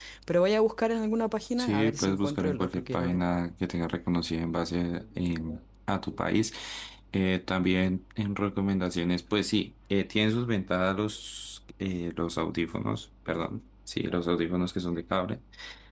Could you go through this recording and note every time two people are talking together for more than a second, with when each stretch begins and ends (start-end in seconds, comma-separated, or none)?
1.6-3.2